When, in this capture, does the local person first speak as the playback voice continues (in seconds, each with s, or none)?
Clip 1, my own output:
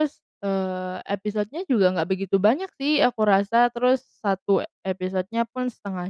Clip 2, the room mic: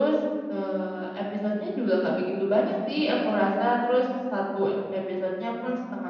none